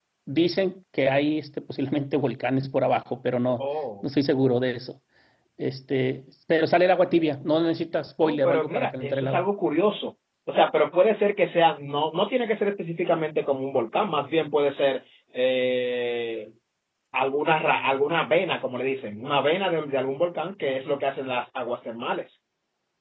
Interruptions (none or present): present